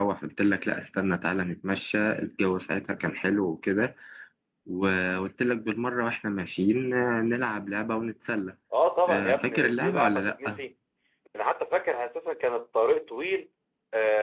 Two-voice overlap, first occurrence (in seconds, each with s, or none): 9.1 s